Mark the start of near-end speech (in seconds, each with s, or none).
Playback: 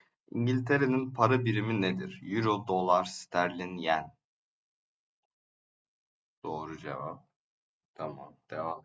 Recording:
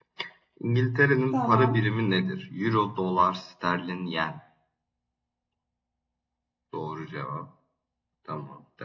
1.3 s